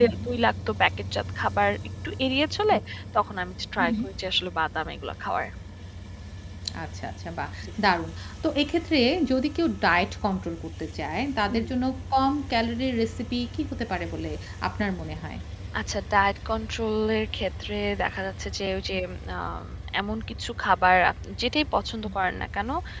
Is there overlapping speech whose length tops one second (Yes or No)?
No